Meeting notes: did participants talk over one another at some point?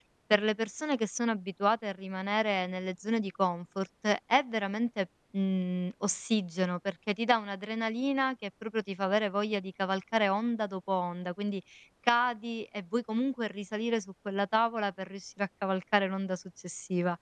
No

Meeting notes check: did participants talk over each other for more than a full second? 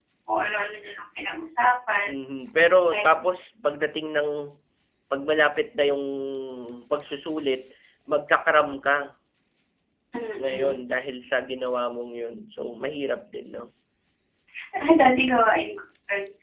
No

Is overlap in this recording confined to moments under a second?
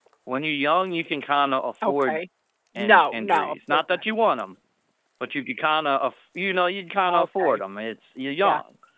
No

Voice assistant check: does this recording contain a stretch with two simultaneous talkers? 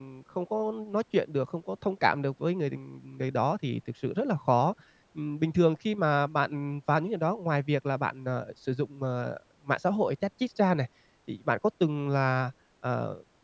No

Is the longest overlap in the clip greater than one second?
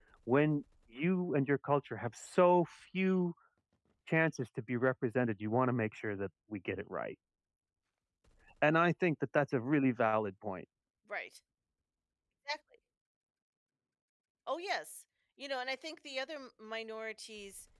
No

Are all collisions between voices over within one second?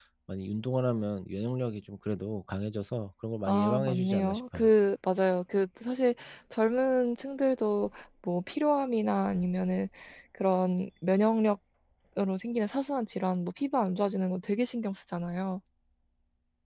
No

